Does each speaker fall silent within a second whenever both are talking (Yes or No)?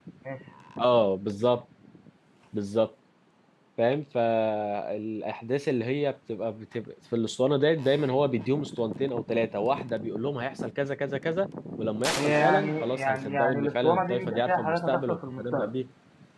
No